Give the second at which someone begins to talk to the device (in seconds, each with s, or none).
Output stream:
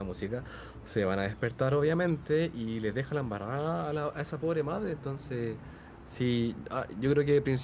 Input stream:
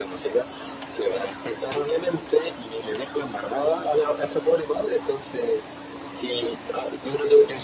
none